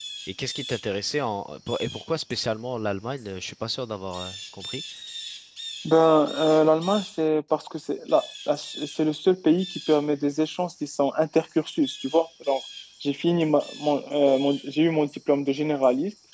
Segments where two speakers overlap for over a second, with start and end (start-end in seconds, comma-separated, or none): none